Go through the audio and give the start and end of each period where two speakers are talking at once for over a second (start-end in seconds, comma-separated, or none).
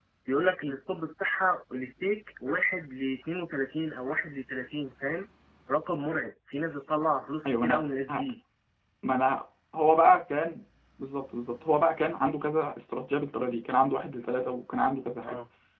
none